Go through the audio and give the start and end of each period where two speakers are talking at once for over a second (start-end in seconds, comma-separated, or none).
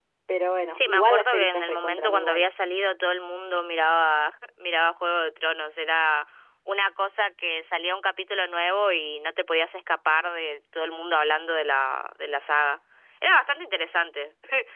0.7-2.5